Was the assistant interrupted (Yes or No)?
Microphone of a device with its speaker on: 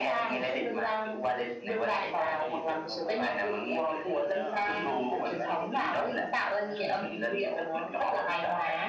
Yes